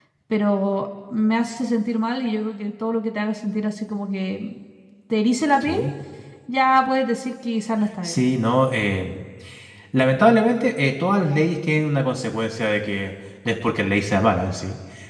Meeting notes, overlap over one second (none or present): none